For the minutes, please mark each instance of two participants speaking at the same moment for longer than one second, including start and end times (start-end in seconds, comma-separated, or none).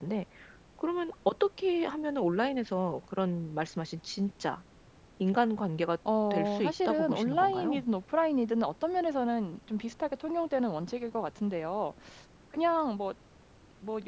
6.3-7.8